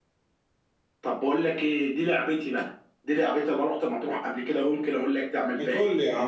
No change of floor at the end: No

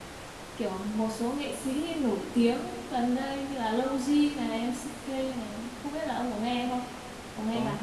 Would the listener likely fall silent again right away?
No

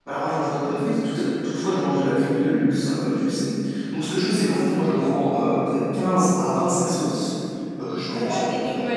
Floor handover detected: Yes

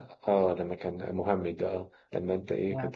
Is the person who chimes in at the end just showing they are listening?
Yes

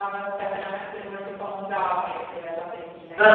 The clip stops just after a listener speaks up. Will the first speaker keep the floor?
No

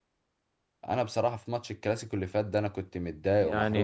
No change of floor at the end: No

